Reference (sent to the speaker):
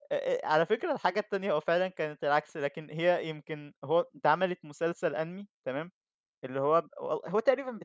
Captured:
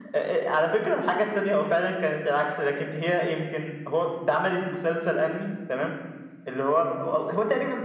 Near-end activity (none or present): none